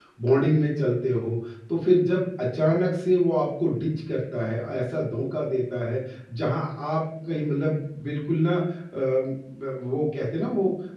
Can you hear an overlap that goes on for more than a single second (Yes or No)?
No